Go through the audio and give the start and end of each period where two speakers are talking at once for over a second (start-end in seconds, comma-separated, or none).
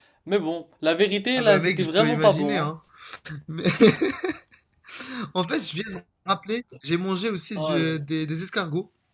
1.4-2.7